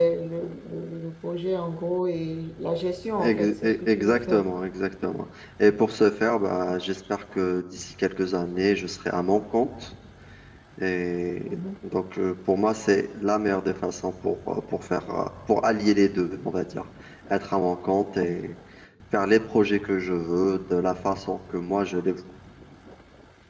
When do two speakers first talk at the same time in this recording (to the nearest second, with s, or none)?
3 s